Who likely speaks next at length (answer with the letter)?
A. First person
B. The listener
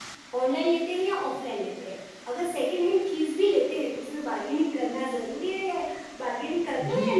B